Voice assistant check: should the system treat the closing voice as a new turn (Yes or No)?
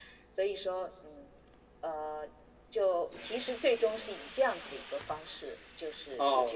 Yes